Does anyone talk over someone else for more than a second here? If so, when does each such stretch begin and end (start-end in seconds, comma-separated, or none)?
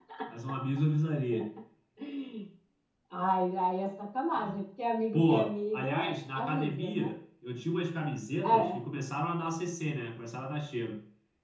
5.1-7.1